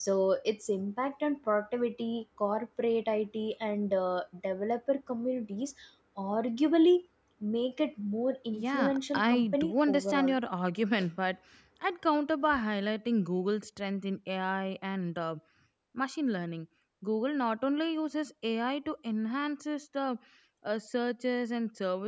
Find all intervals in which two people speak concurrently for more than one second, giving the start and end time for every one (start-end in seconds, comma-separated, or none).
8.5-10.4